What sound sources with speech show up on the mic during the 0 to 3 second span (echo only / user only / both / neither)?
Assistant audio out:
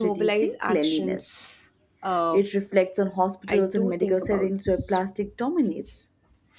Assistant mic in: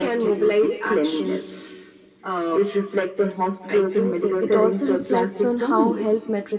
echo only